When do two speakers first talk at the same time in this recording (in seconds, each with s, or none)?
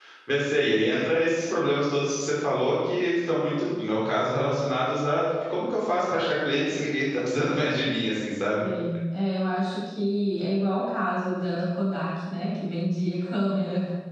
none